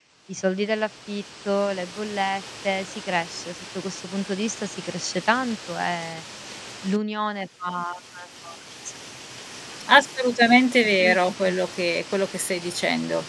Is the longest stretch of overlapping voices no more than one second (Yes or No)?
Yes